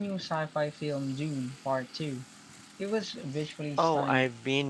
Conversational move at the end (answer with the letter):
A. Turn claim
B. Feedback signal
A